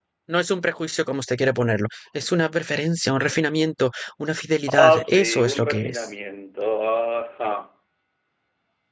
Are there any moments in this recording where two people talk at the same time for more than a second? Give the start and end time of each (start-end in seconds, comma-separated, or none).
4.8-6.1